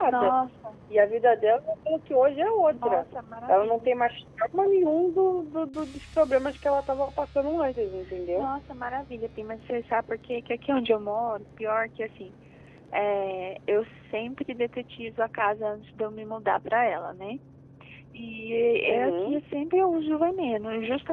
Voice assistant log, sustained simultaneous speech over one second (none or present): none